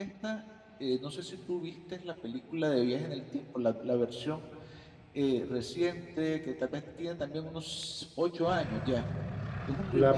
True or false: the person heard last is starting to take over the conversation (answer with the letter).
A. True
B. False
A